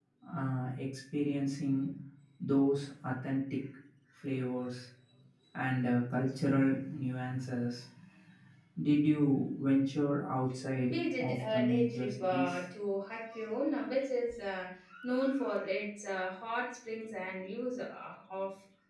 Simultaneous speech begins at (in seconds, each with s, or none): 10.8 s